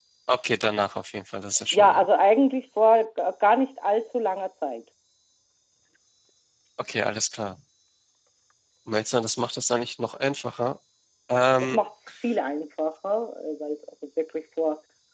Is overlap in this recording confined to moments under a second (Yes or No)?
Yes